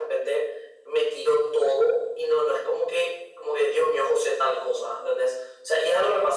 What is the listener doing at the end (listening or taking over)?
listening